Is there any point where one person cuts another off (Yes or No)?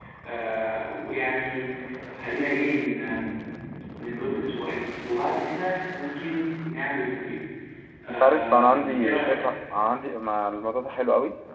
Yes